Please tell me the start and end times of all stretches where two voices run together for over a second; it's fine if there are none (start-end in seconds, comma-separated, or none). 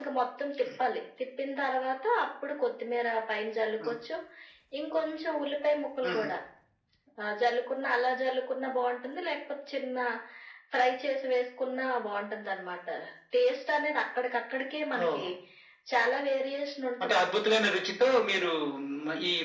none